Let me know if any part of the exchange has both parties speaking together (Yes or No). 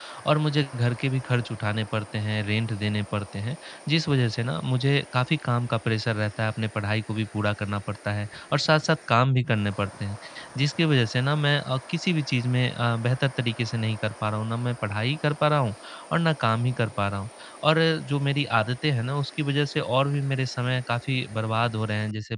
No